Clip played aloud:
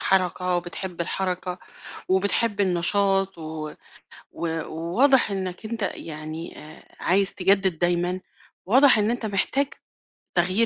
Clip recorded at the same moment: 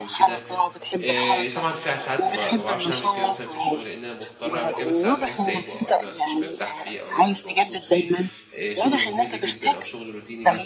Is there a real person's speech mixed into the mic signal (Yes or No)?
Yes